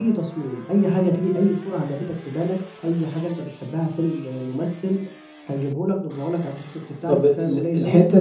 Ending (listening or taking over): taking over